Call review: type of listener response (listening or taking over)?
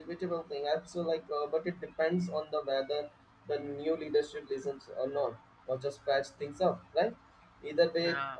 listening